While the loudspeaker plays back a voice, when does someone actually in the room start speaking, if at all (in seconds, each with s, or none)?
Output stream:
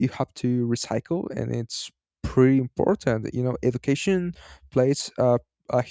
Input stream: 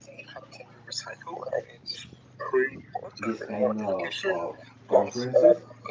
3.2 s